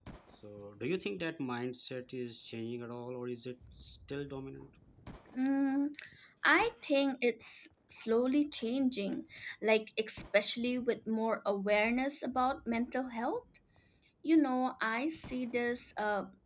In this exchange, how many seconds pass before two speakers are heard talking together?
none

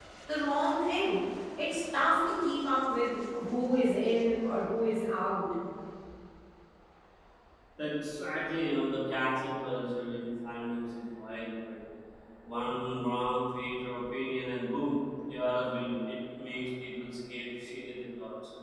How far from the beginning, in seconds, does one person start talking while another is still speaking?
none

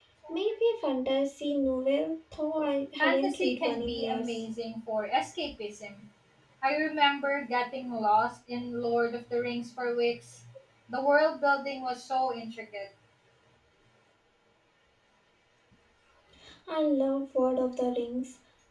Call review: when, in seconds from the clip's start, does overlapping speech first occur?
3 s

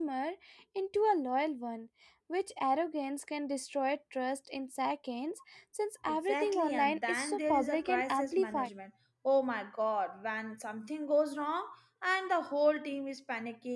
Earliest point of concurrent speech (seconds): 6 s

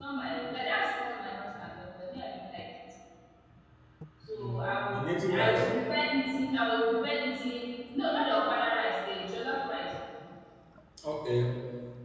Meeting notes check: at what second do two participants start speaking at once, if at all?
4 s

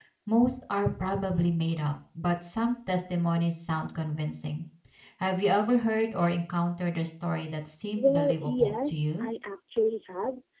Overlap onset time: 8 s

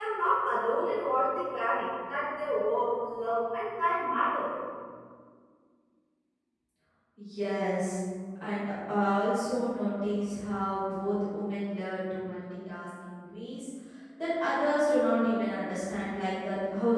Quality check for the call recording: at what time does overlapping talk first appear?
none

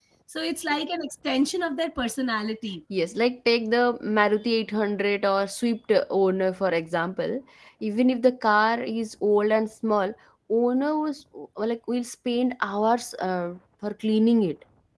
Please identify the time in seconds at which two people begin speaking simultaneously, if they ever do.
none

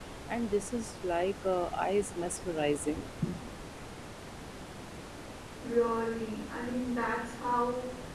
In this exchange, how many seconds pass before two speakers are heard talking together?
none

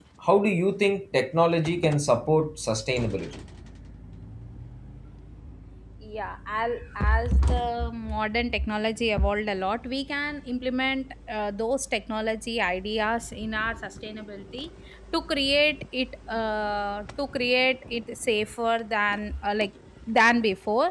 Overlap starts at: none

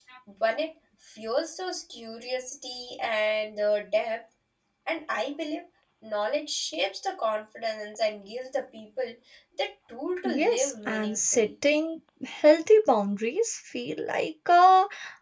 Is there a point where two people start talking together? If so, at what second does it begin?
10 s

